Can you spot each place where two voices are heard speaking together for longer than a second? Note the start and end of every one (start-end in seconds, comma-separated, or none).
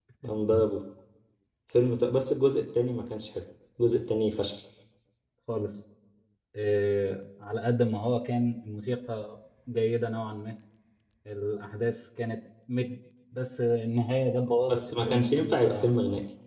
14.7-15.9